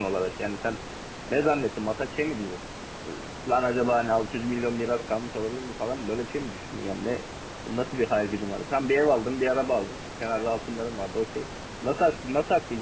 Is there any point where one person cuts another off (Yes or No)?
No